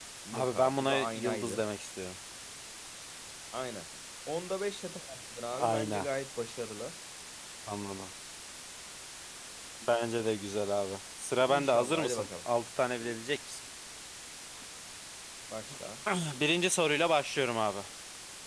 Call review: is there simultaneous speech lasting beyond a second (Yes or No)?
Yes